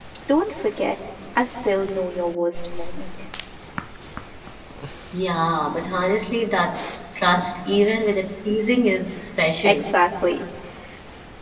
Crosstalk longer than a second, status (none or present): none